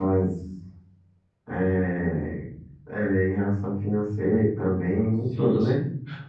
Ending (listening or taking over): taking over